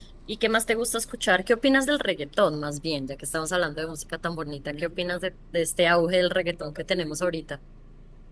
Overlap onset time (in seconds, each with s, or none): none